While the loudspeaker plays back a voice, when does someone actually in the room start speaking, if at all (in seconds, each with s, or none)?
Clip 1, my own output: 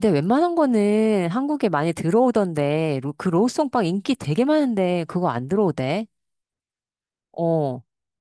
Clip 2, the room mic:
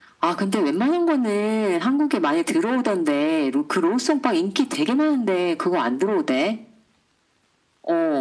none